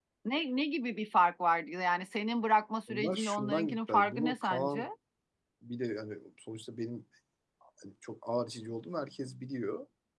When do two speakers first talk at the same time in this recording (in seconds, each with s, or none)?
2.9 s